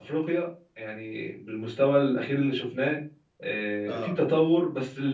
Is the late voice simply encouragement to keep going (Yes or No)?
Yes